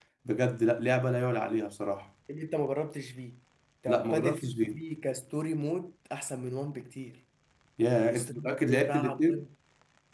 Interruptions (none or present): present